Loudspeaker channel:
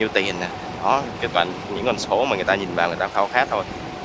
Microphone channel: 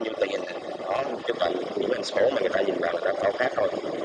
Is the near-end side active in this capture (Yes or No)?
No